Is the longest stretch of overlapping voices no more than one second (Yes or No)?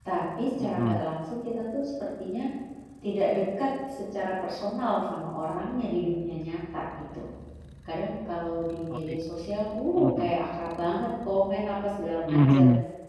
Yes